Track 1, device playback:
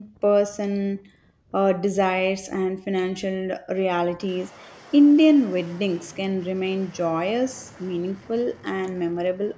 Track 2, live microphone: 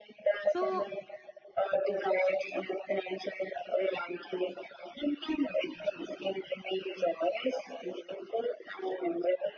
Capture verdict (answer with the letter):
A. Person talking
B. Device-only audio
A